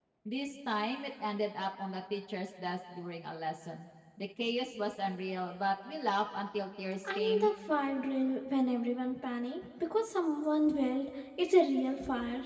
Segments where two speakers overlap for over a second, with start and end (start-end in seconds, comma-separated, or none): none